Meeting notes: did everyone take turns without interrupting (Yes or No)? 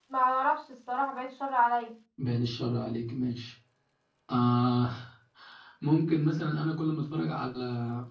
Yes